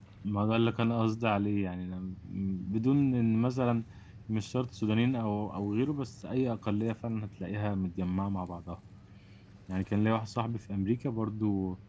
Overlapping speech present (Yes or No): No